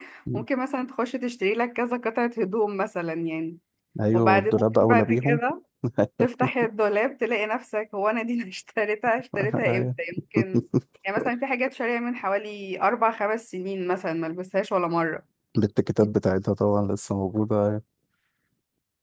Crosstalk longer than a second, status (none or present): present